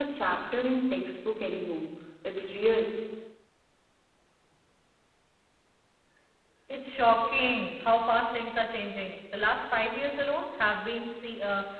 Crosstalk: none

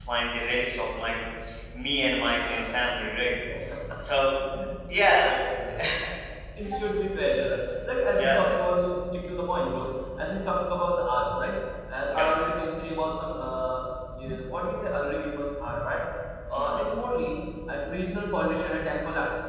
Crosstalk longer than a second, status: none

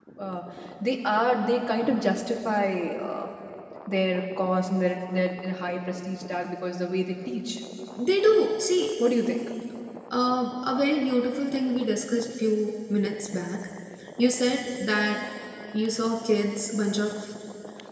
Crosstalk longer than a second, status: none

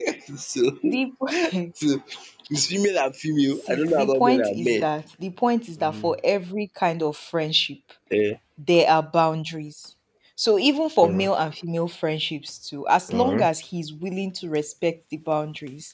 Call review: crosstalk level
present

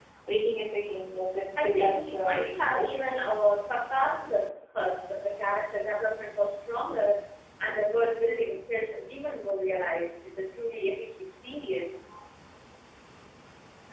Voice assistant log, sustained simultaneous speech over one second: present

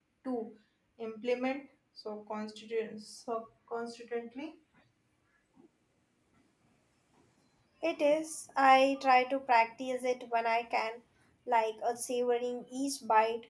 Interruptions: none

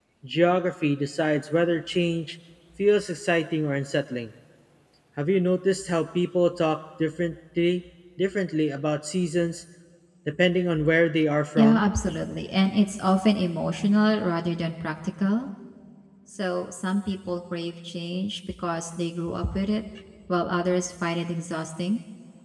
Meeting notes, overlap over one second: none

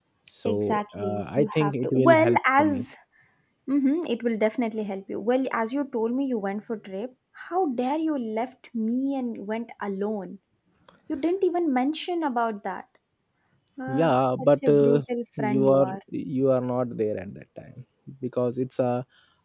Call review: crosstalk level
present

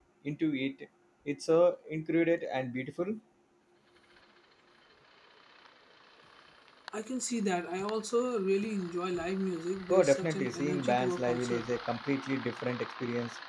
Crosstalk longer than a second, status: present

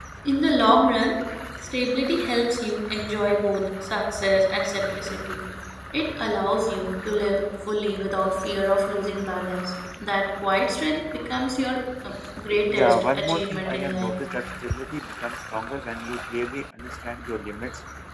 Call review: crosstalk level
present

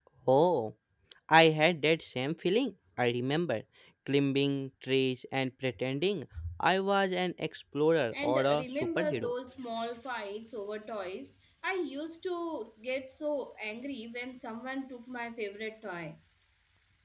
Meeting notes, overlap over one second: present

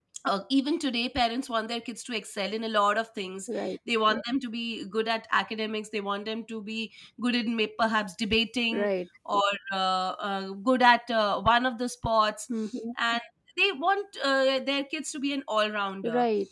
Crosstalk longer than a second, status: none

